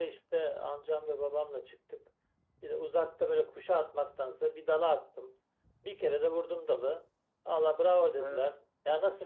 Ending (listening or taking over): listening